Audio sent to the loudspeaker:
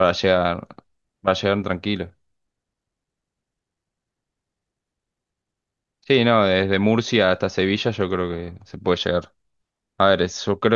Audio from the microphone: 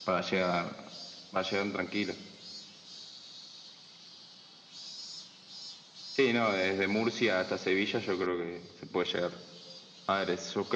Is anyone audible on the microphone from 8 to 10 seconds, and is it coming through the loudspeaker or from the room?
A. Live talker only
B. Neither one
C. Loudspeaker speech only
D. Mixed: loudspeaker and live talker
C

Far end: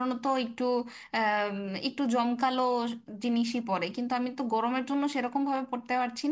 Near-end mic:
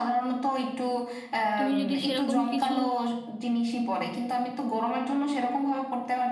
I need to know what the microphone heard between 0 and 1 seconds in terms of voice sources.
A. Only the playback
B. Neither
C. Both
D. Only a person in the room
A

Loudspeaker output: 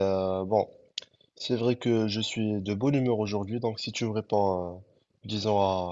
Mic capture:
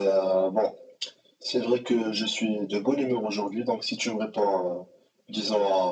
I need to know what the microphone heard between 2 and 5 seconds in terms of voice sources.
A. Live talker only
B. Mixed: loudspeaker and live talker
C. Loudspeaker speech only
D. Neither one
C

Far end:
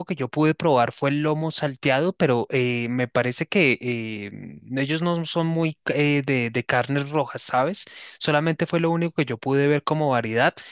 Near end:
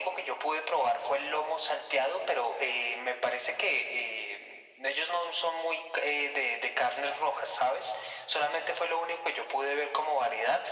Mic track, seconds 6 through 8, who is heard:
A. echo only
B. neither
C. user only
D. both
A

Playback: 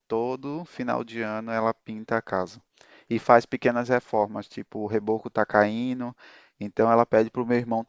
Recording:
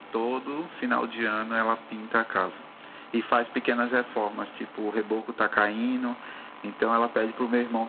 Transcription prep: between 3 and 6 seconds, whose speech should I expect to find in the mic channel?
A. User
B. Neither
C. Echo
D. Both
C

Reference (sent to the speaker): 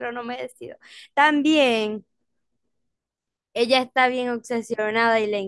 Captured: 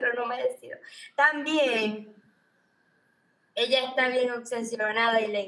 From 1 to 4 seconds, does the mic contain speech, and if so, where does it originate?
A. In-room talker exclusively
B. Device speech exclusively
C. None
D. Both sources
B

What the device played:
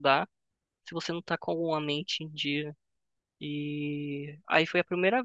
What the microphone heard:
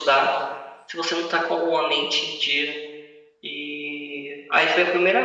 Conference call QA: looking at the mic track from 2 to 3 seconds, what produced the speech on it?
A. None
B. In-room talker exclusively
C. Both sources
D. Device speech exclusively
D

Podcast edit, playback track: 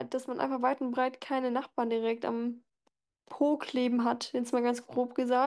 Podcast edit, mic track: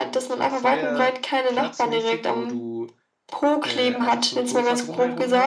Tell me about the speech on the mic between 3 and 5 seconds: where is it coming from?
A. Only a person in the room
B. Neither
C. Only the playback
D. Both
D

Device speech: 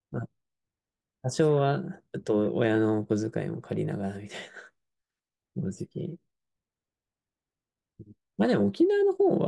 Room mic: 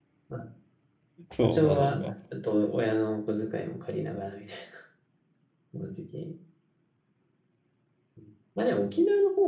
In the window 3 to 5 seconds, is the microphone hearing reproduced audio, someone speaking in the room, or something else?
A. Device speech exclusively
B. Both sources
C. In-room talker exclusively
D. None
A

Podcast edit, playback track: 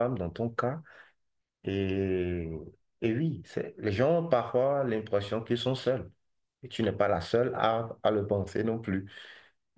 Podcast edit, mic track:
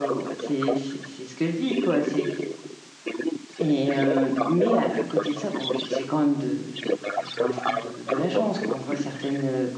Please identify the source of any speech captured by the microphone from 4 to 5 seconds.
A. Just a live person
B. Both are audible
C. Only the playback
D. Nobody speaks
B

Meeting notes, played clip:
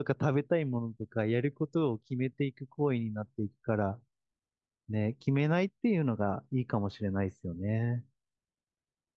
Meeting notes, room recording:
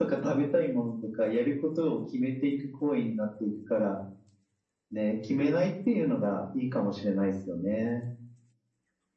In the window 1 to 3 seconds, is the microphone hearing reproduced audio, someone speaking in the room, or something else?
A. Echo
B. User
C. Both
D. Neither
A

